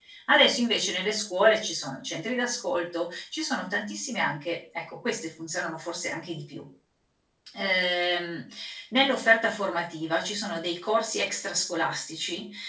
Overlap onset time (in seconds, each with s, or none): none